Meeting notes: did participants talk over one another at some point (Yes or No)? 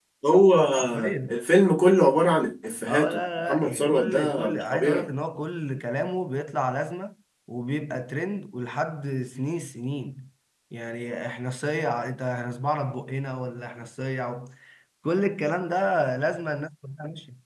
Yes